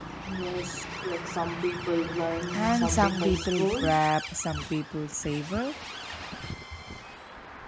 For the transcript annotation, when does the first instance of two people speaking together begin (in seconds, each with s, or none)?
2.4 s